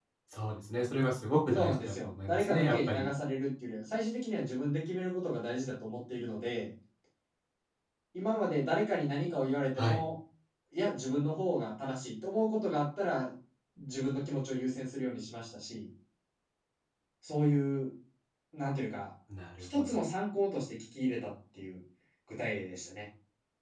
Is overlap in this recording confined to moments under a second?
No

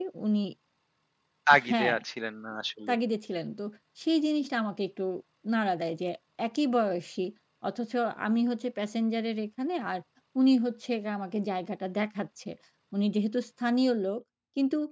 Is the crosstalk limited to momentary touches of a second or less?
Yes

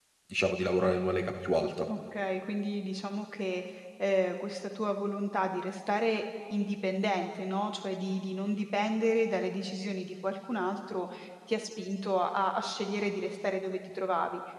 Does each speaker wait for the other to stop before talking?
Yes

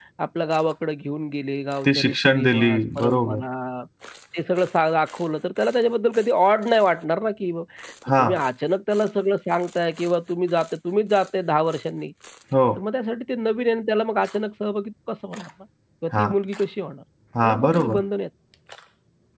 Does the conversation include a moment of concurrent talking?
Yes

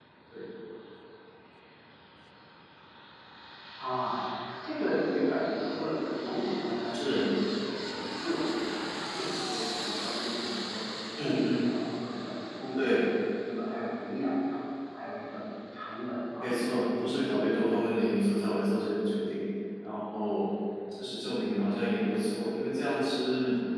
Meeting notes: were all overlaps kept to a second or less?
No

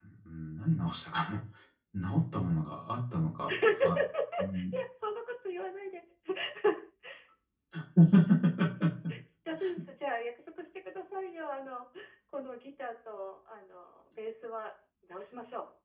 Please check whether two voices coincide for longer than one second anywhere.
No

